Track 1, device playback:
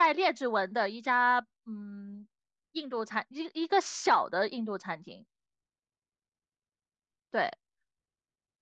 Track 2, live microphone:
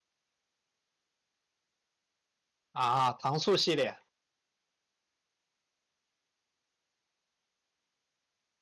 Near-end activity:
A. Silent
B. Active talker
B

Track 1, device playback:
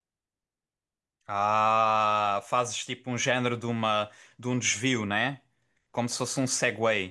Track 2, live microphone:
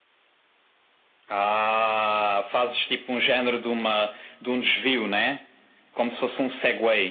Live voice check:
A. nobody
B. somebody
A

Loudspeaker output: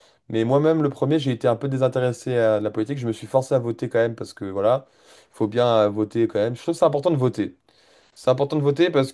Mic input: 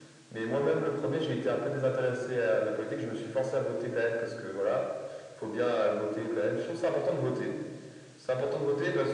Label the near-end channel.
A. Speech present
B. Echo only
B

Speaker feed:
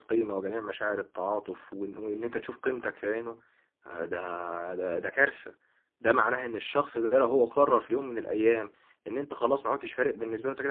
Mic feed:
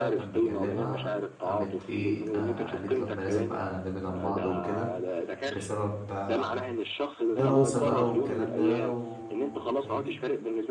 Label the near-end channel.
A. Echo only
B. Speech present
B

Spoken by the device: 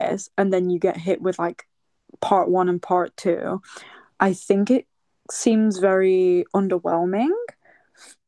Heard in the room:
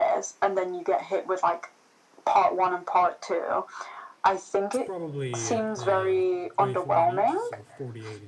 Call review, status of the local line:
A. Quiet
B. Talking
B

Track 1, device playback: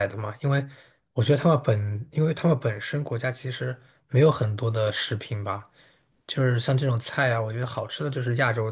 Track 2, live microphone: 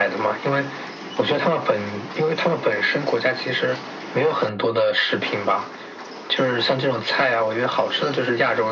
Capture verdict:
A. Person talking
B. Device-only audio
B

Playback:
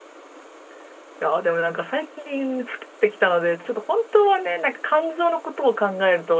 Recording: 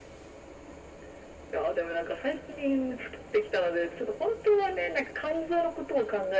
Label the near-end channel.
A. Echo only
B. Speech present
A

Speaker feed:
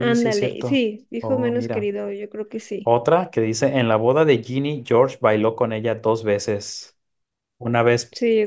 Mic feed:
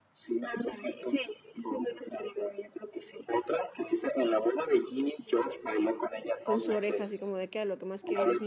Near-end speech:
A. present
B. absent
A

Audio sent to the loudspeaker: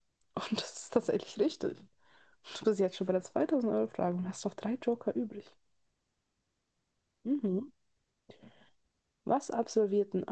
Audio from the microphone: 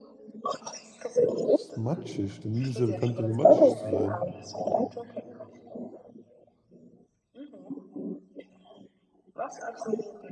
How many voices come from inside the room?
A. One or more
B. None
A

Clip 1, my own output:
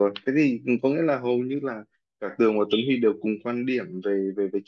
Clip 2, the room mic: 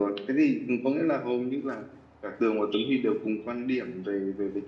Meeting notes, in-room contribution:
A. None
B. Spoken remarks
A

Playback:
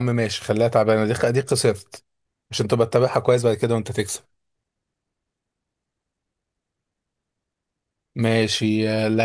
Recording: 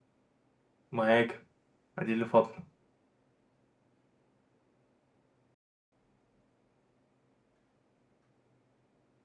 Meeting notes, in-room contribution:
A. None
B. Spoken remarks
B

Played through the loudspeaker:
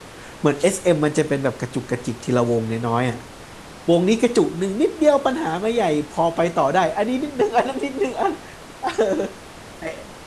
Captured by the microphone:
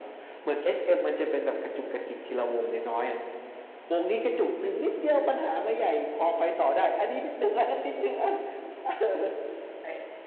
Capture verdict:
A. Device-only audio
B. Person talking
A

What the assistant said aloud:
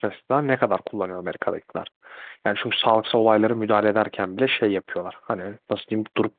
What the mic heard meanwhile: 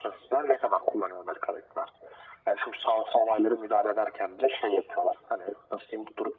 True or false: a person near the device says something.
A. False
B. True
A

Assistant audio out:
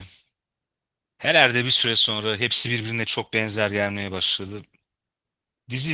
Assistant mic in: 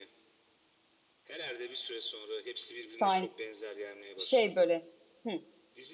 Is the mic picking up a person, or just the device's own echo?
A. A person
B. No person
A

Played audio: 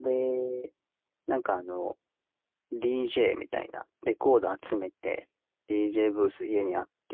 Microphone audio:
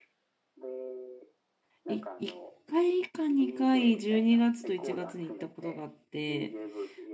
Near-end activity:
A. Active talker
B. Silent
A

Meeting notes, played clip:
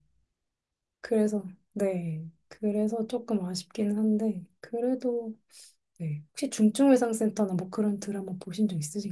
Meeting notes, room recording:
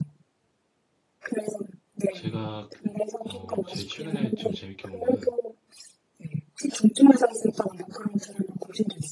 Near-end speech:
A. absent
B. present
B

